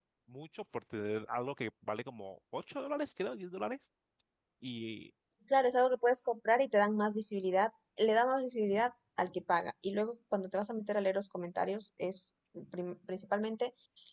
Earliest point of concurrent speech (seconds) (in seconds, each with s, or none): none